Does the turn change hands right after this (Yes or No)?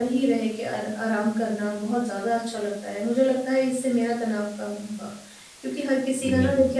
No